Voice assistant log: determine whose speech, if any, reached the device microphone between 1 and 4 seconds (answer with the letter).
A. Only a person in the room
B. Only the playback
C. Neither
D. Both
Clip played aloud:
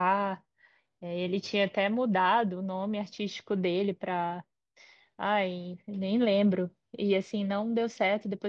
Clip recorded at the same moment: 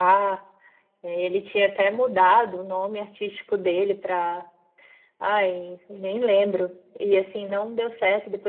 B